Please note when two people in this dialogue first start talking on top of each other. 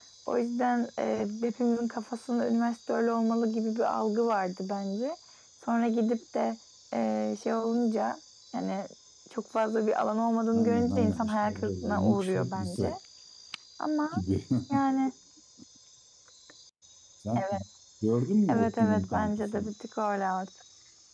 10.6 s

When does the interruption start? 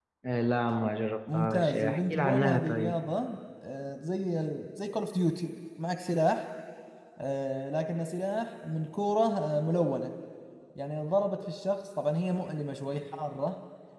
1.3 s

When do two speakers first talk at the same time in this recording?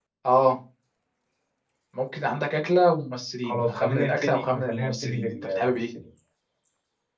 3.4 s

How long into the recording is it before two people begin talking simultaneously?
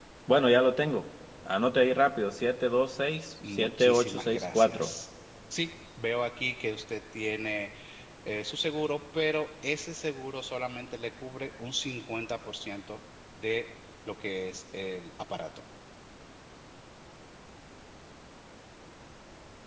3.4 s

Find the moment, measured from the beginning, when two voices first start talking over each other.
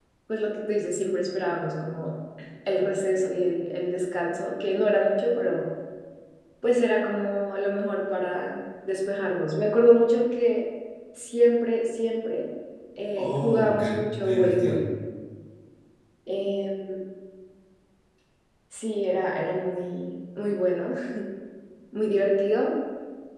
13.2 s

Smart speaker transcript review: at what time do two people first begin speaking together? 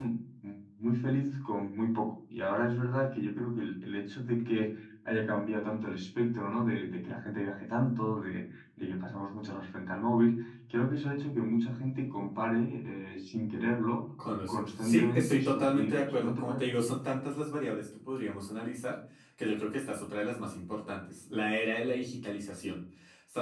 14.5 s

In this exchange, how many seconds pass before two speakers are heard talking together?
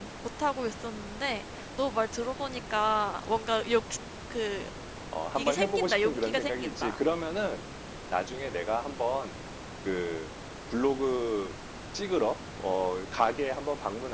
5.3 s

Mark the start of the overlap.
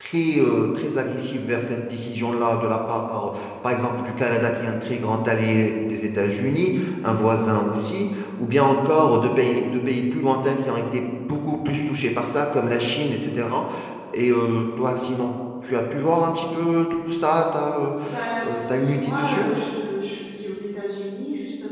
18.1 s

